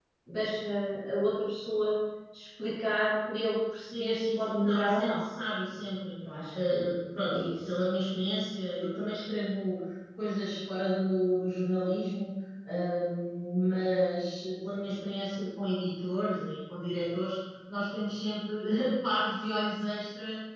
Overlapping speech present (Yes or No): Yes